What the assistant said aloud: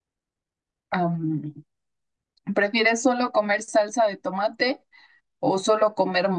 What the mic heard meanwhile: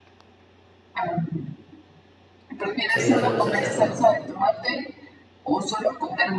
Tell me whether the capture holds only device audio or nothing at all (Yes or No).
No